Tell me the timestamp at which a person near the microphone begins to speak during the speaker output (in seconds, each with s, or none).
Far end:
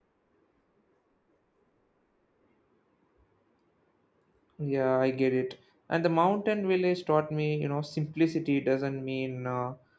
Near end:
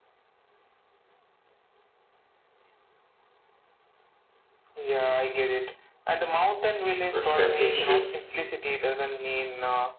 7.1 s